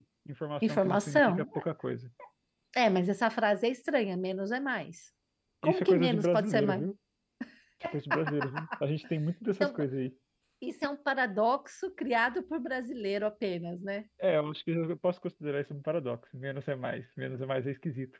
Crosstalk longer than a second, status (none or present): present